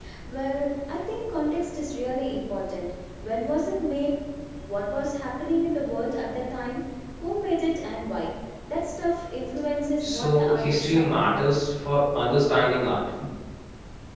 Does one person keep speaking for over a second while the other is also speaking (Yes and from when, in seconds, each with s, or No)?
Yes, from 10.0 s